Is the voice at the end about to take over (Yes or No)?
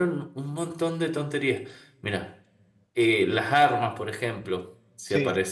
No